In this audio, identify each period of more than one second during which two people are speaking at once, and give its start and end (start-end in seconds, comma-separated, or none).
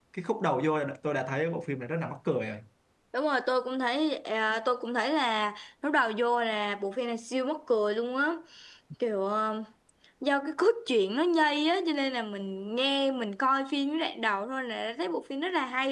none